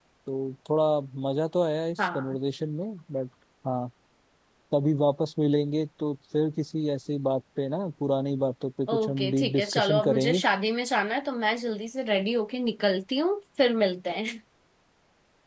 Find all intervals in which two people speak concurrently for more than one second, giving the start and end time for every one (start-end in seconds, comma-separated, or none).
8.9-10.4